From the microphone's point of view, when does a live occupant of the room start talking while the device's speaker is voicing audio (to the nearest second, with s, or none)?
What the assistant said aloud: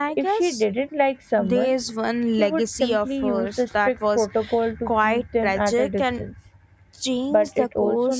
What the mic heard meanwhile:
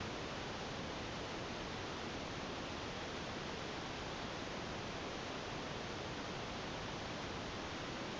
none